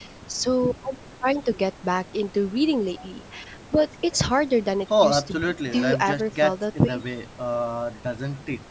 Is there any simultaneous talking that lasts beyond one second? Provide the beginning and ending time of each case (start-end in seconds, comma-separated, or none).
5.0-7.0